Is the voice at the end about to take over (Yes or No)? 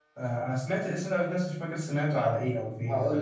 Yes